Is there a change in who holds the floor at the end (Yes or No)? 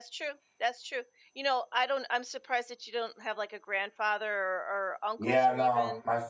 Yes